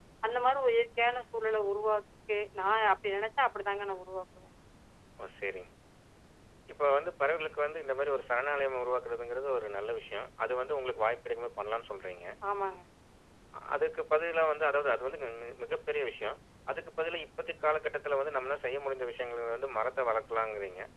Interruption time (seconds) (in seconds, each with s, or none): none